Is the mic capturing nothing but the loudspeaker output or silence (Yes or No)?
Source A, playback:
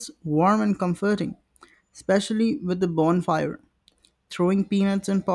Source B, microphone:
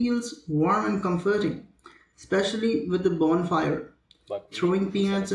No